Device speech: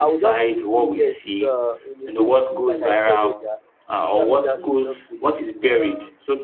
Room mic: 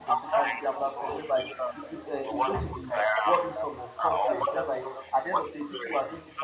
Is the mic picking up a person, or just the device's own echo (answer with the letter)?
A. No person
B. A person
B